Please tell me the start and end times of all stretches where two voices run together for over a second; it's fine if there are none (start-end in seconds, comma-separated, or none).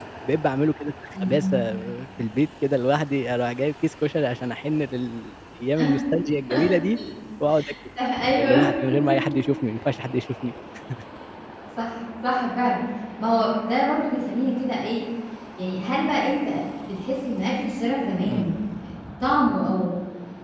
none